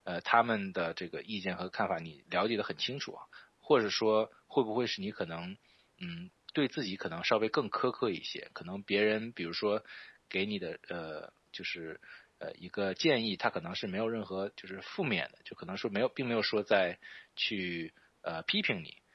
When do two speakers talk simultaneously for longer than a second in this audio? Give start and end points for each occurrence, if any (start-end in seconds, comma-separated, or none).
none